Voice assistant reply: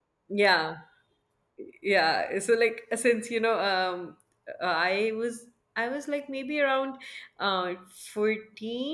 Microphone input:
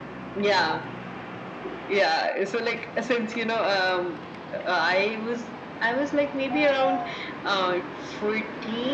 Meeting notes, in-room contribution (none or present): none